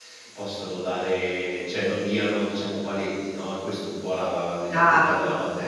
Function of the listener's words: taking over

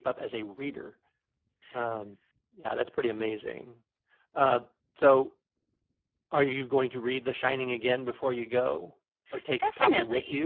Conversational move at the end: taking over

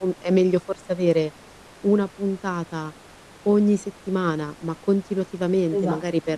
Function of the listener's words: listening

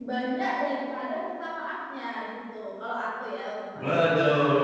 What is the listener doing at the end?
taking over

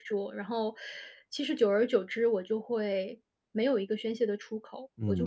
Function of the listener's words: taking over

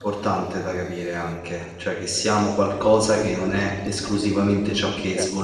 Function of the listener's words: taking over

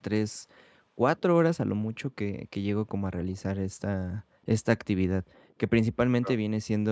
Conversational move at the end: listening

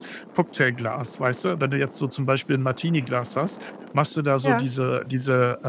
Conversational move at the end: listening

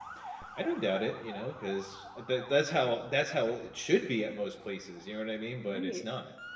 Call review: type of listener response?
taking over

